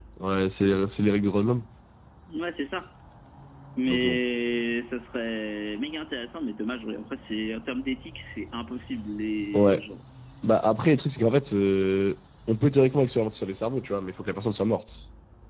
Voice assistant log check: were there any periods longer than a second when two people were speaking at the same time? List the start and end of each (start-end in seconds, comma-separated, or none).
none